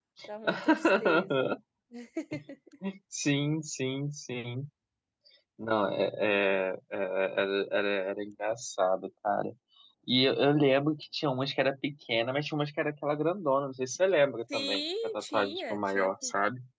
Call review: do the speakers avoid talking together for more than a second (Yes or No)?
No